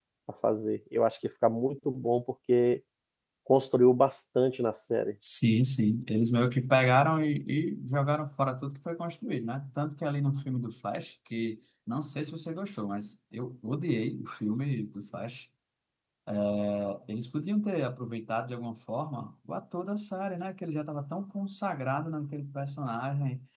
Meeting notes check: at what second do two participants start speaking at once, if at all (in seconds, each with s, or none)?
none